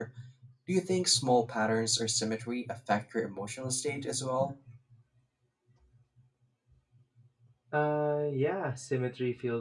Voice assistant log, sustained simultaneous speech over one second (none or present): none